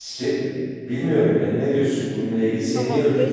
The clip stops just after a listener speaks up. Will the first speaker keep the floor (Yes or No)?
No